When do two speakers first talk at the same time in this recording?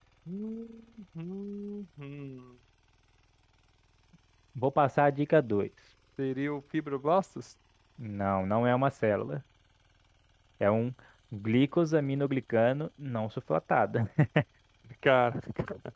none

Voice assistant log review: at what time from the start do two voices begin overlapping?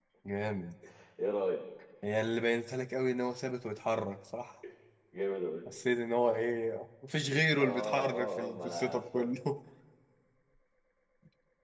7.6 s

